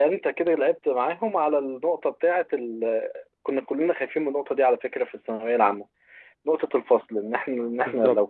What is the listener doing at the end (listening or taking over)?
listening